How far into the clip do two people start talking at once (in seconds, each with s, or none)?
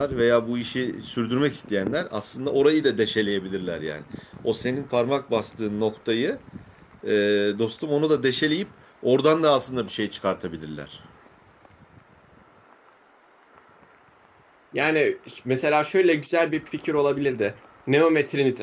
none